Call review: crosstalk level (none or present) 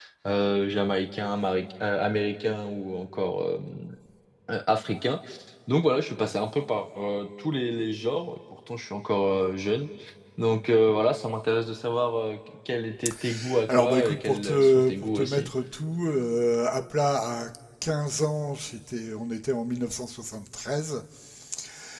present